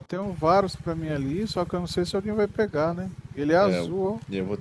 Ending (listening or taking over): taking over